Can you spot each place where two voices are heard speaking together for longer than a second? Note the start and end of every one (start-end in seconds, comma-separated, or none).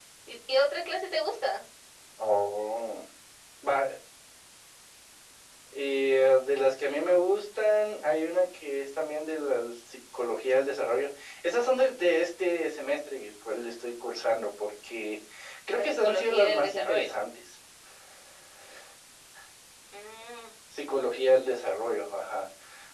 15.8-17.1